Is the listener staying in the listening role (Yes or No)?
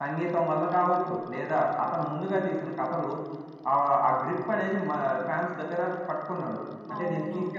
No